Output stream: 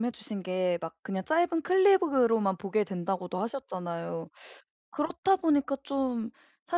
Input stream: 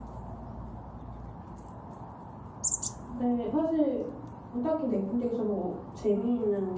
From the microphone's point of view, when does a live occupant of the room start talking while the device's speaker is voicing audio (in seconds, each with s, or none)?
3.1 s